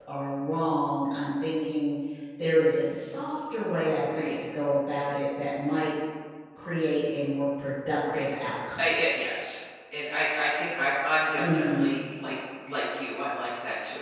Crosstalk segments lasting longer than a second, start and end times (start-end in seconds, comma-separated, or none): none